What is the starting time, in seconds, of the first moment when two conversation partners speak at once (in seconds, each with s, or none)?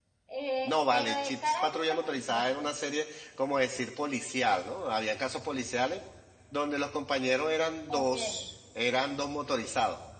0.6 s